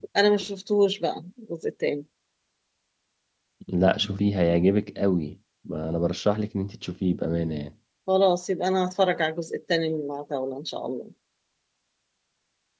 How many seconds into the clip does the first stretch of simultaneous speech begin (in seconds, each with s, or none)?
none